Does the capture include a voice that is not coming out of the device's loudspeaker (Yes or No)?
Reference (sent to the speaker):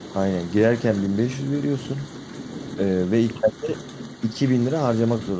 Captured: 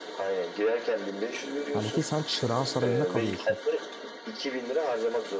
Yes